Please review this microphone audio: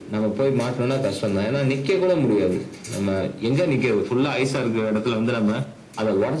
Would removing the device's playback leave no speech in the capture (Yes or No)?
Yes